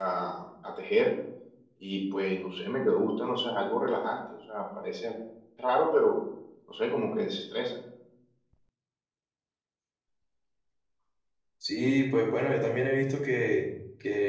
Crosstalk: none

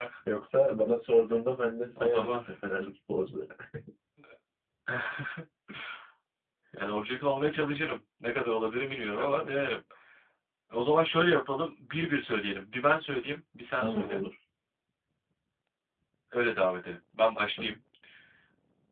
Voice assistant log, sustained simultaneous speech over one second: none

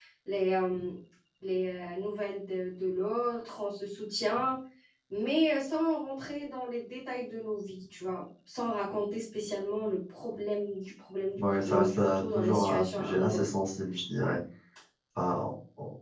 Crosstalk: present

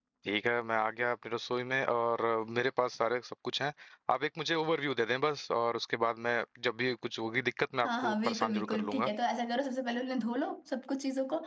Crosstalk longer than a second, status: present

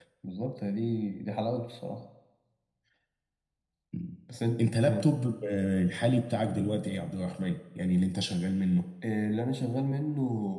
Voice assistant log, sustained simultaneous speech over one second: none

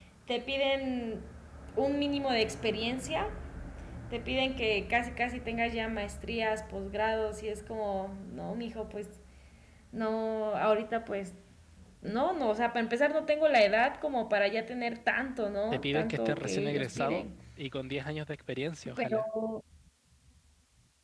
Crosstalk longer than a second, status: present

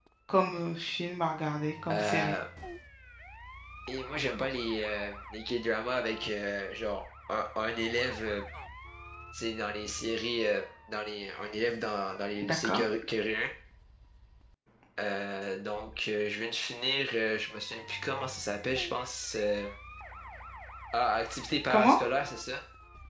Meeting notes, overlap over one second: none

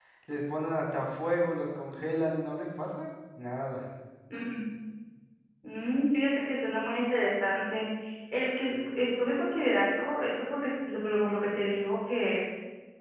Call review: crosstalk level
none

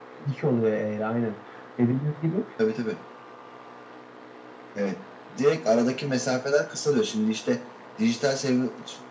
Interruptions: none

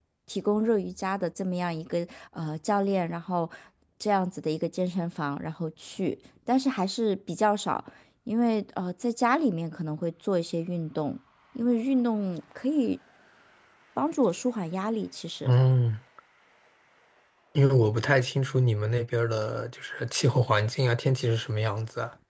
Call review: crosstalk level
none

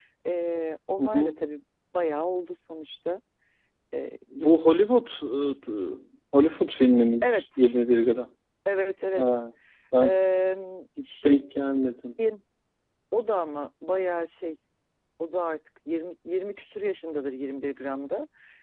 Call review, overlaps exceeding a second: none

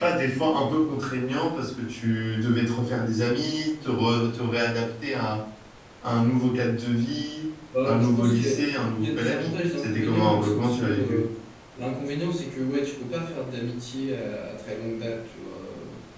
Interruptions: present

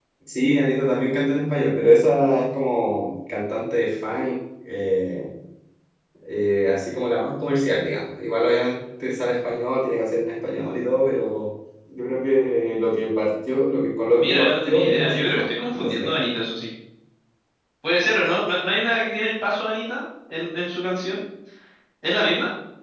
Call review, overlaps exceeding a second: present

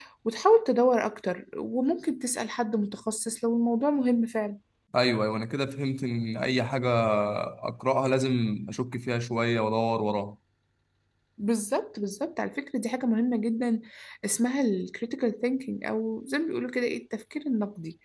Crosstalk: none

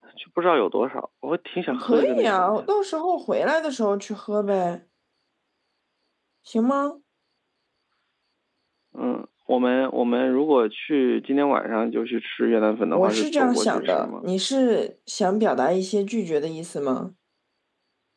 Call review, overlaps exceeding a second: present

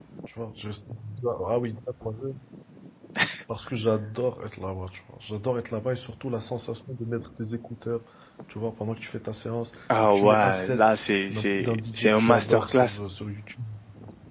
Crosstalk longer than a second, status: present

